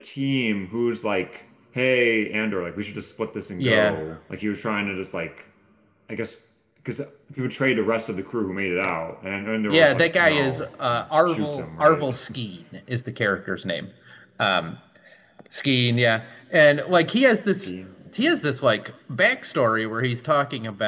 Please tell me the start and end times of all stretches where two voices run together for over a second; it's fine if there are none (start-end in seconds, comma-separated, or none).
9.7-12.1